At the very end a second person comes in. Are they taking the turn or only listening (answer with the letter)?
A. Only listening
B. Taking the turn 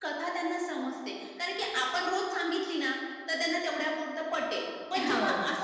A